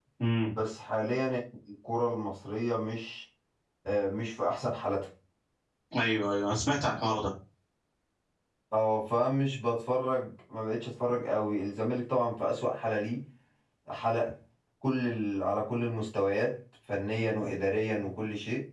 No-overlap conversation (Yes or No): Yes